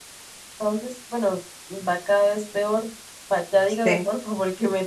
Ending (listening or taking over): listening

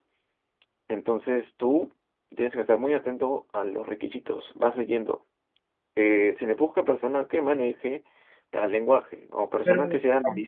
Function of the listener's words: listening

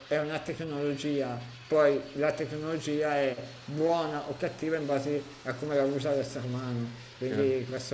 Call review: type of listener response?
listening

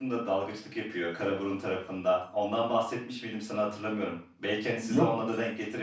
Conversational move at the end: listening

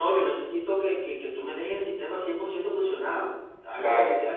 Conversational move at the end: listening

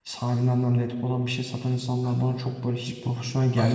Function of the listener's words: taking over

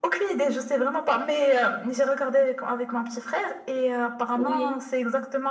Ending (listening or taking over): listening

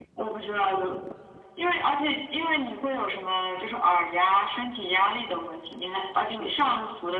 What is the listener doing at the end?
listening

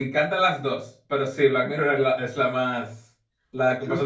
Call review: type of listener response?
taking over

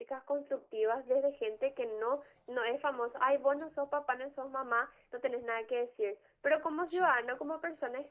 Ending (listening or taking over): listening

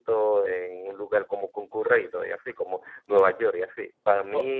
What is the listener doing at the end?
listening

